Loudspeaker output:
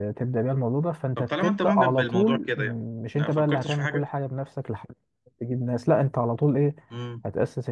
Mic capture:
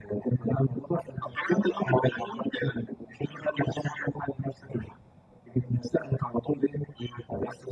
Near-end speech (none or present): none